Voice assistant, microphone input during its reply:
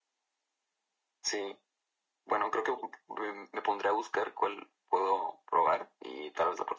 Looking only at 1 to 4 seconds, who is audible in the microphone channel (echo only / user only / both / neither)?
echo only